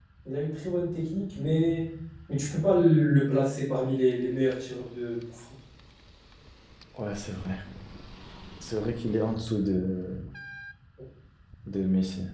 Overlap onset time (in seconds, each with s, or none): none